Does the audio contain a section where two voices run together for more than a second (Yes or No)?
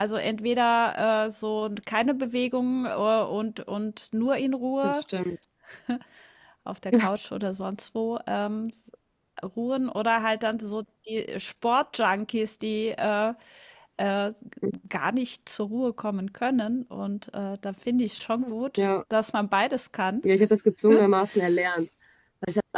No